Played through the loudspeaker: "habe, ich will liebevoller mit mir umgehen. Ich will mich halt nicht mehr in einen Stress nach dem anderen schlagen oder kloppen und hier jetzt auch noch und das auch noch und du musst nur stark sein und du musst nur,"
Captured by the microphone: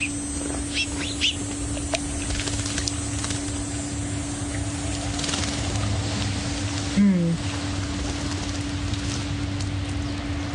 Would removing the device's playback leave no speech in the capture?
No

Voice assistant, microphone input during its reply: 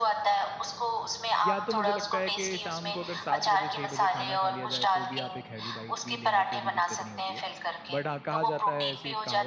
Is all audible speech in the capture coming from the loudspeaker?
No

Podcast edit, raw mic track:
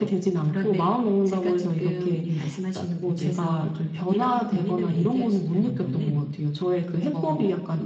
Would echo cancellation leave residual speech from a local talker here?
No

